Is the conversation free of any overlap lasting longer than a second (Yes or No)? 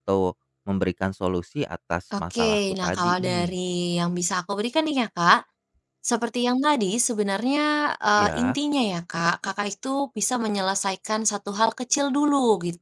No